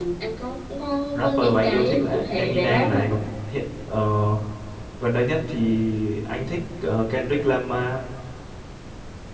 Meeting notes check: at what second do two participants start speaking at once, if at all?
1 s

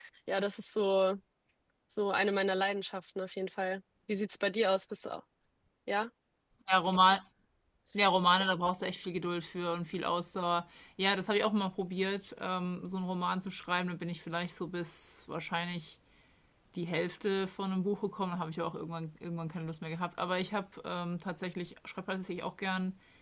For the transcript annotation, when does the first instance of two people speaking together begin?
none

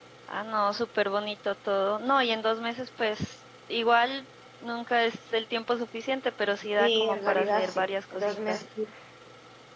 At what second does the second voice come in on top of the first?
7 s

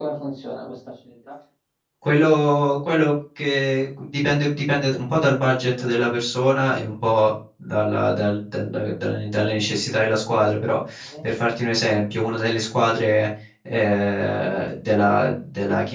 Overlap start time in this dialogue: none

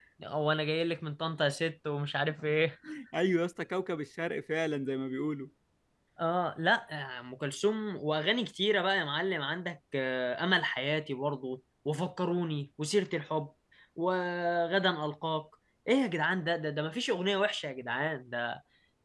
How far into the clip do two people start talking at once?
none

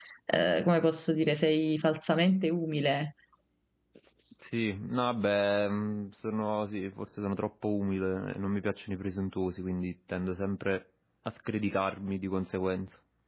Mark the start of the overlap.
none

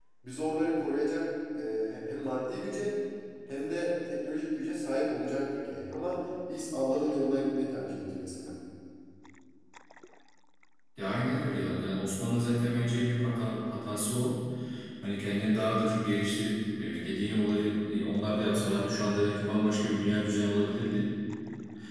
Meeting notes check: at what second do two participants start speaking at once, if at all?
none

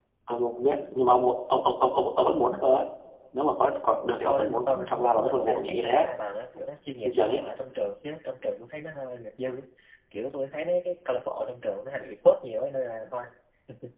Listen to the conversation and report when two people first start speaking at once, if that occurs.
4 s

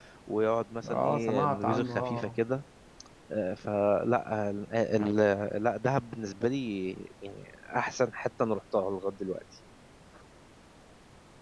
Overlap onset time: 1 s

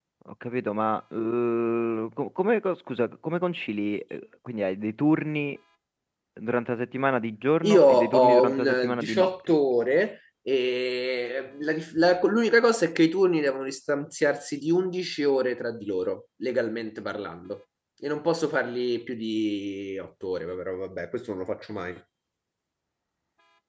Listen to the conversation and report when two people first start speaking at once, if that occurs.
8 s

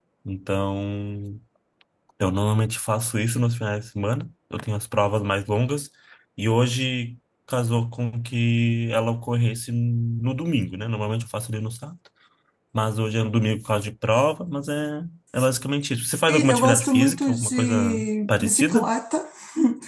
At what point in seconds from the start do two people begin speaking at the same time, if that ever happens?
16 s

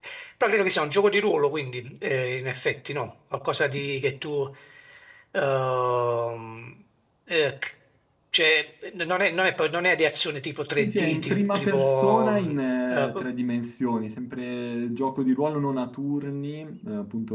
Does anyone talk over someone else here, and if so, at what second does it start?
11 s

